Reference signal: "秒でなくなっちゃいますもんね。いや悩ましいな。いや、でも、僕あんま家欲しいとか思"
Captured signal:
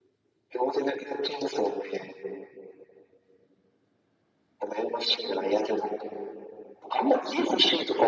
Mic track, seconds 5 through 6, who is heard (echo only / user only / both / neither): echo only